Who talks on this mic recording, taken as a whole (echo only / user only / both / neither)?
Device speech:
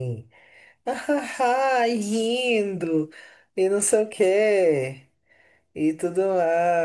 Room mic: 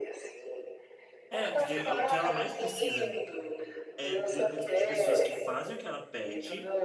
both